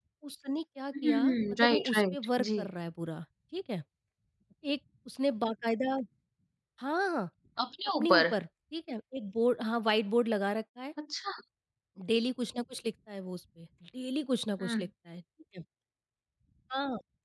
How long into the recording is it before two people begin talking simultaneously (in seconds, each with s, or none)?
1.0 s